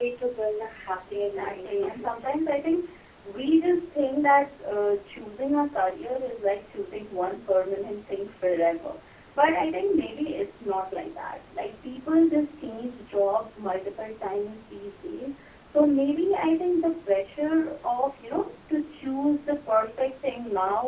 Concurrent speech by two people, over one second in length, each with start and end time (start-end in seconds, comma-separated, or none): 1.1-2.4